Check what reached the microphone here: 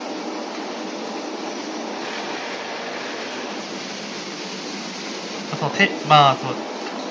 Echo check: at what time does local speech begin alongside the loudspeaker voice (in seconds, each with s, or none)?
5.5 s